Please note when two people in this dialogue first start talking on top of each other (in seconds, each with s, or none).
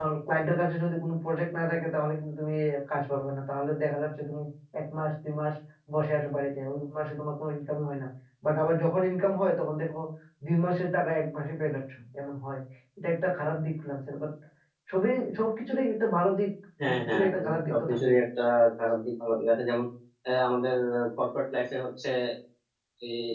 16.8 s